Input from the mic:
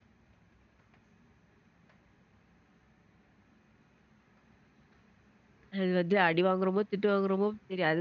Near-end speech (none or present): present